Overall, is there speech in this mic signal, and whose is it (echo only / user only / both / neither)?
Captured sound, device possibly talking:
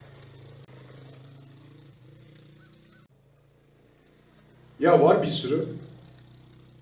user only